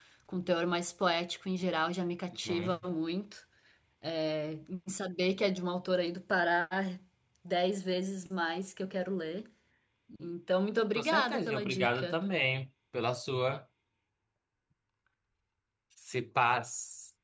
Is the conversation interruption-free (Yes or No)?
No